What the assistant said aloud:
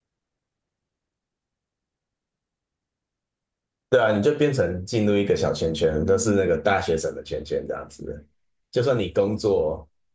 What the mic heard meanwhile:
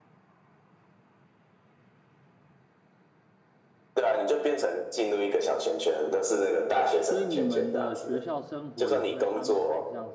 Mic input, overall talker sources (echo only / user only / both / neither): both